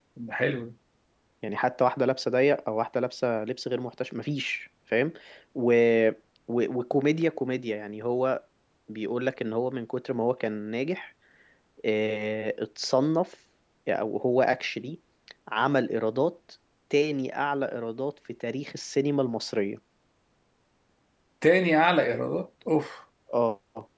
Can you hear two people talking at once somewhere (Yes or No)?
No